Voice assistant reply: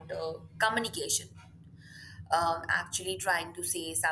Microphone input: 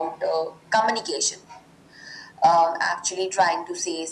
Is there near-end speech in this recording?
No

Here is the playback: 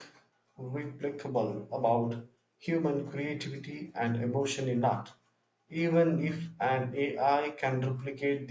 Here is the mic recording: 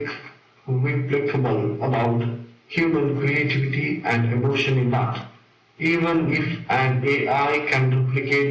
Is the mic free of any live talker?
Yes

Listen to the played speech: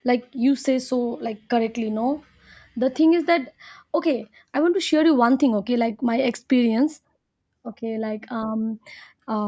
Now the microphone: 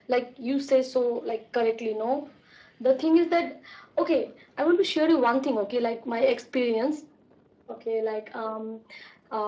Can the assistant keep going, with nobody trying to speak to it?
Yes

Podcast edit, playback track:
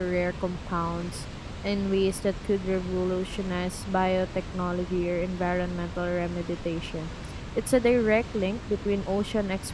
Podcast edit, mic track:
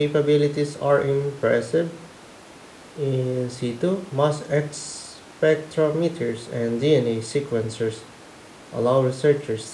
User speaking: Yes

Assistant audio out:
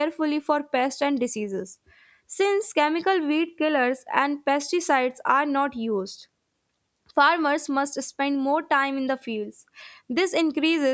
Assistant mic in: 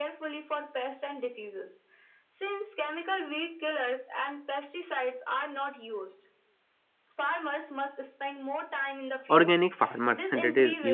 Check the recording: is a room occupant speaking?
Yes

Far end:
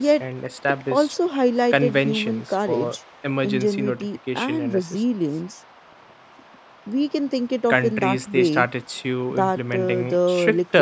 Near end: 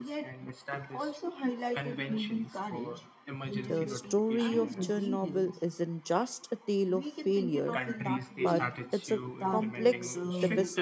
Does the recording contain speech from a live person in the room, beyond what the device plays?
Yes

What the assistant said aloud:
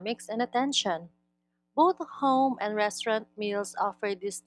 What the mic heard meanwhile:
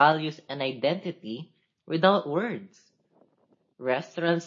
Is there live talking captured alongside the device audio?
Yes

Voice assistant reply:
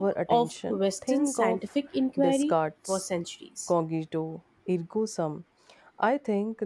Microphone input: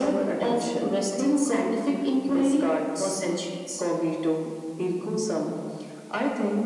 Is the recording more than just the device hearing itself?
No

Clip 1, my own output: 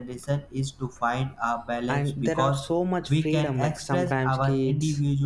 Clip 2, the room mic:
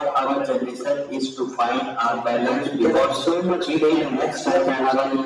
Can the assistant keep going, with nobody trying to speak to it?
No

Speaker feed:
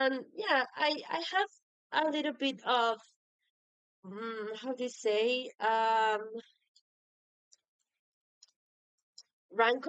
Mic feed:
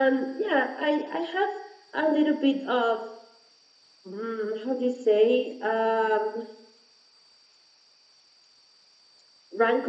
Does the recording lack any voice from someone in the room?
Yes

